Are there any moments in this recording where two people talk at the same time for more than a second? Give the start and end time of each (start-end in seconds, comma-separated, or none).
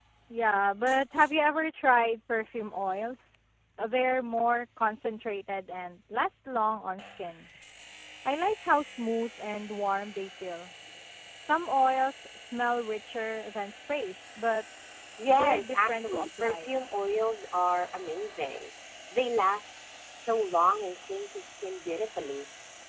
15.3-16.8